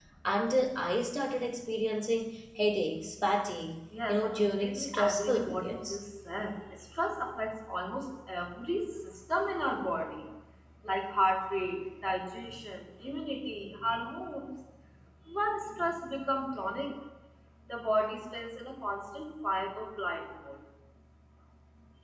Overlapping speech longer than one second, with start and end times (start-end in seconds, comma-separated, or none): 4.1-6.0